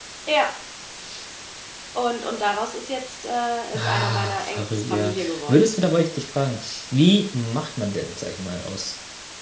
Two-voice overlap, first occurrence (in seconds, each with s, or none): 3.7 s